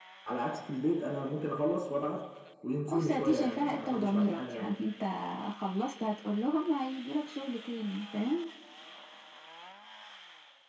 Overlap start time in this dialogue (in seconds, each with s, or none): 2.9 s